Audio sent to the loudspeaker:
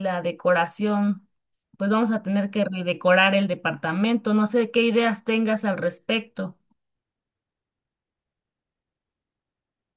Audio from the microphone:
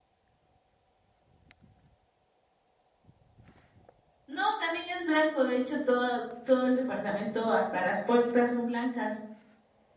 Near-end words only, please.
No, también es blanco, de hecho, todo, todo el departamento, hasta las puertas son blancas.

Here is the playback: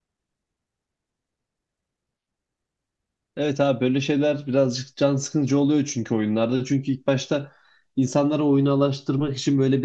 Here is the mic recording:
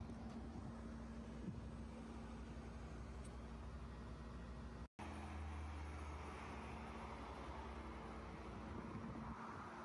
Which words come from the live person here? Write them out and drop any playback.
none

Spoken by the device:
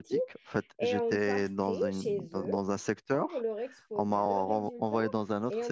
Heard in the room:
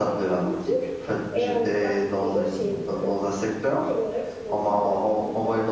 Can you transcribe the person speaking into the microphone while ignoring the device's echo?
none

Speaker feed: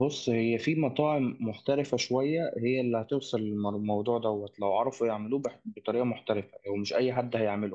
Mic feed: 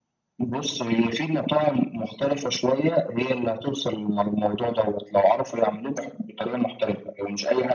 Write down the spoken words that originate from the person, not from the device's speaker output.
none

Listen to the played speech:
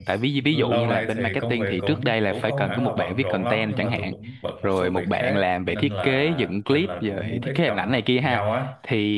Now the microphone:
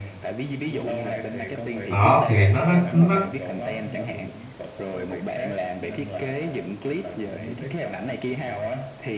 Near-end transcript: đó thì nó nó nó

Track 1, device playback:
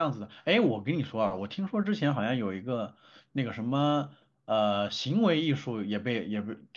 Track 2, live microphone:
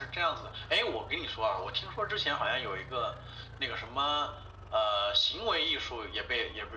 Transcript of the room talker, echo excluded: none

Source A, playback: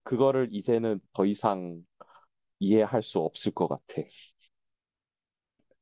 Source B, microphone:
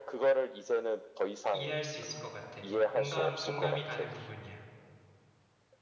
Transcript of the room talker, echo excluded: 이해할 수 있을 것 같아. 공감, 공감이 가는 부분이야.

